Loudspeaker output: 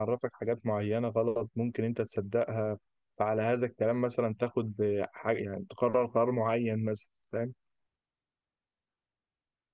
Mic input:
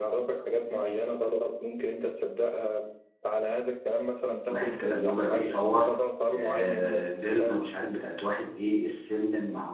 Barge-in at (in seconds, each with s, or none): 4.5 s